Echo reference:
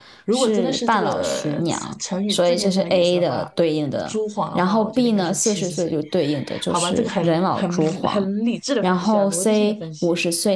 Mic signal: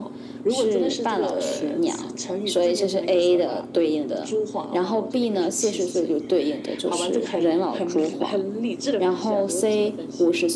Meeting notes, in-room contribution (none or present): none